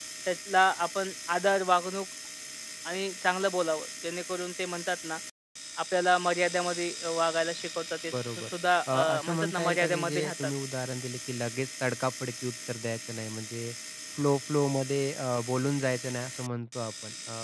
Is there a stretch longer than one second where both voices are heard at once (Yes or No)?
Yes